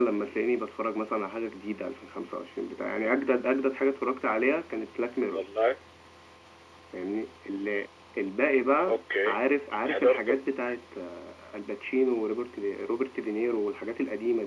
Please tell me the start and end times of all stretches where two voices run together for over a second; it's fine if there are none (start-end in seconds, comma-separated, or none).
none